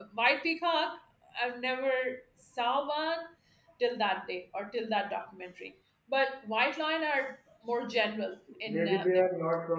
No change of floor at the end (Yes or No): No